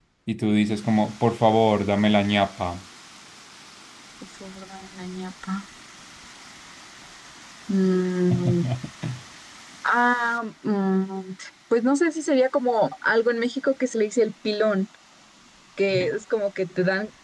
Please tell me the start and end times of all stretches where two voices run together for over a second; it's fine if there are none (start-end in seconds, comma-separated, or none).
none